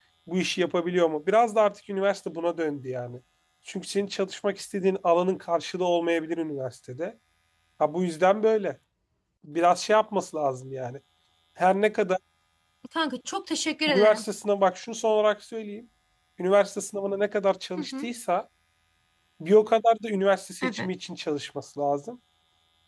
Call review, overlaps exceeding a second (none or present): none